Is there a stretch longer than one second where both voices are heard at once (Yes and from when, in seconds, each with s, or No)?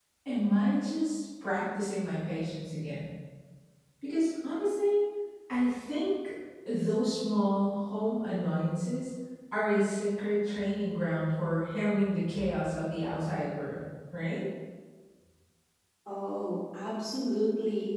No